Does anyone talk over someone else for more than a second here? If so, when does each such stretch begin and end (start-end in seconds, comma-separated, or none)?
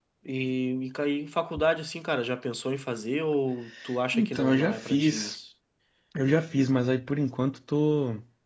4.1-5.3